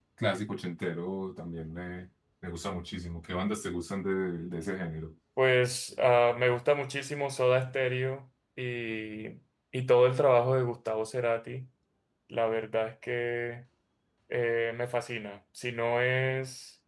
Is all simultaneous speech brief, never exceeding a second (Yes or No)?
Yes